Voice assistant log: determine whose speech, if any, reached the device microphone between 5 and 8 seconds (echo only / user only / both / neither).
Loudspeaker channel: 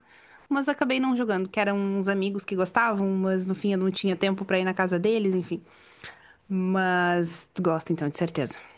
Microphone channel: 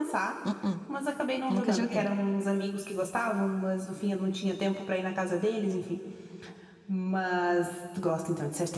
echo only